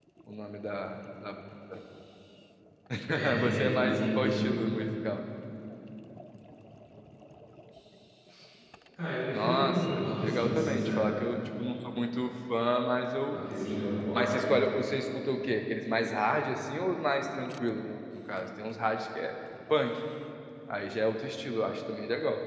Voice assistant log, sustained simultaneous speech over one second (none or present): present